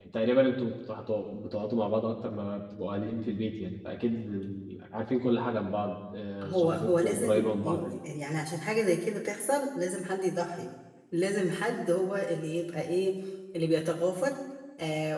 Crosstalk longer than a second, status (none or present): present